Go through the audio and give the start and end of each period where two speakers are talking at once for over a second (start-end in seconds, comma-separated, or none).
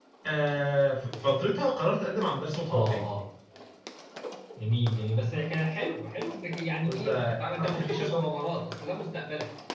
6.8-8.2